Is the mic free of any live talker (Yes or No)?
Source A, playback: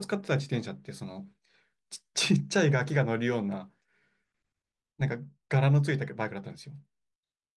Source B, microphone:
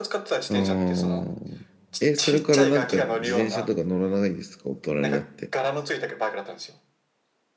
No